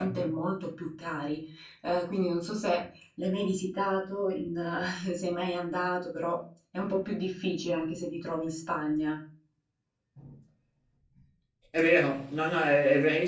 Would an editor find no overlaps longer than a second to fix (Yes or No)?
Yes